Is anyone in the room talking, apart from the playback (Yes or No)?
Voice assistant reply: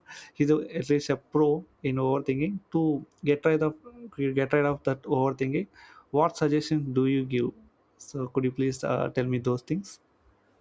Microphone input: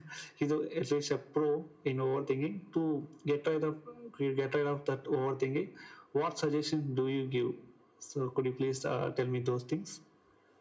No